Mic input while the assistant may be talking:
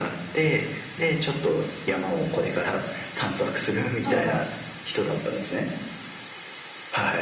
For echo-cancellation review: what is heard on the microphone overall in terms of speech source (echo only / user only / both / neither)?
both